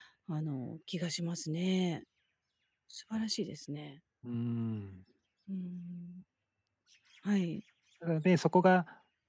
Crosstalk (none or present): none